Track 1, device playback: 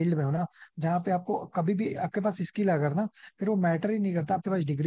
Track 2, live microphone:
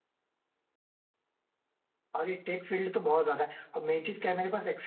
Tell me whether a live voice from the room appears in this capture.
Yes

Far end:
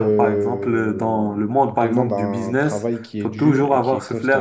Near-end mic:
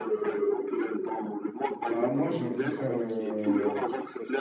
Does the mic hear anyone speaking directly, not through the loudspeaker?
Yes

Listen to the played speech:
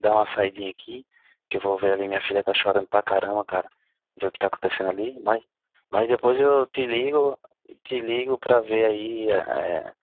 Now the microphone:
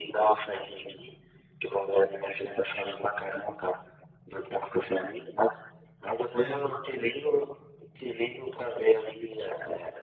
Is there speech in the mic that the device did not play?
Yes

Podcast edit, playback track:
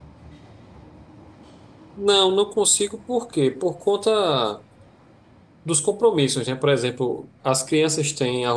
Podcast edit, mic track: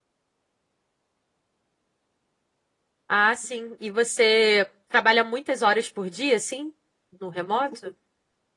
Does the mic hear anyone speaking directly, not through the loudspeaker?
Yes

